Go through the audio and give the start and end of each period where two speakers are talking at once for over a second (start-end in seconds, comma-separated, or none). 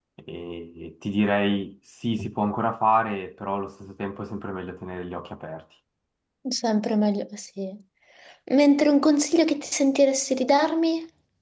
none